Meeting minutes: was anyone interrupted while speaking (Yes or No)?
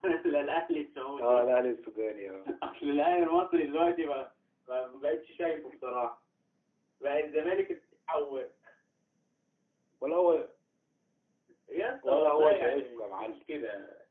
Yes